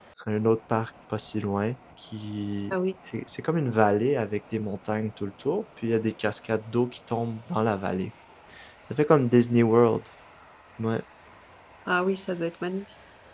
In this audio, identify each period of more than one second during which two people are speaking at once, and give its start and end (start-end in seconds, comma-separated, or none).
none